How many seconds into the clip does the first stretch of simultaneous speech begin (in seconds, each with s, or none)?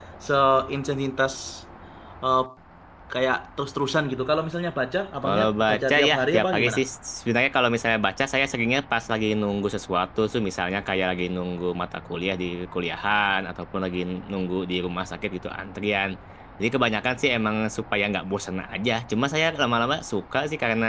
5.2 s